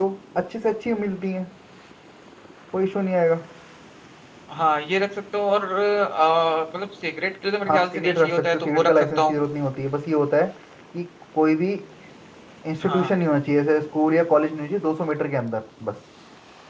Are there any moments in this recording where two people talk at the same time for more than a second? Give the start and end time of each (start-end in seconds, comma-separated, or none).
7.7-9.4